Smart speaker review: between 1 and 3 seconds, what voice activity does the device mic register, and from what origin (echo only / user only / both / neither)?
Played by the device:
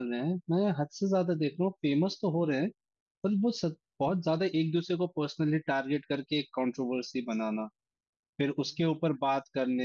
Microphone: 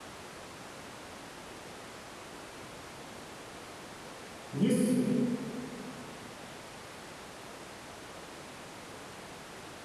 neither